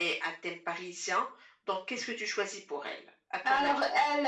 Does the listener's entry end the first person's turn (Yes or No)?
Yes